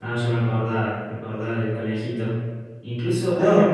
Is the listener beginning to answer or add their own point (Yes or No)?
No